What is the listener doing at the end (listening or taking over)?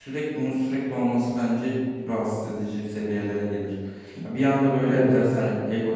listening